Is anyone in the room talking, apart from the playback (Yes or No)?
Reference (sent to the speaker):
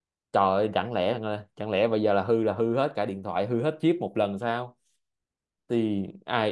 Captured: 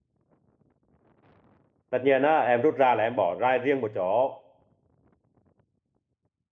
Yes